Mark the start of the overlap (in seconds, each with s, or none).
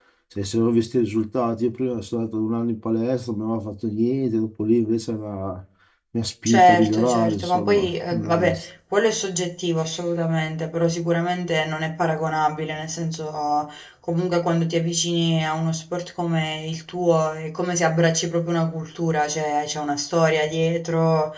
6.5 s